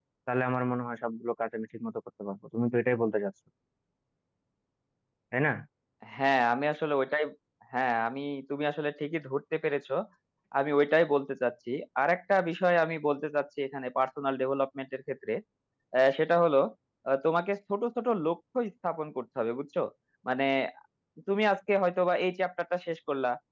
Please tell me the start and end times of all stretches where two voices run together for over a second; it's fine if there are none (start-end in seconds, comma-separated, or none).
none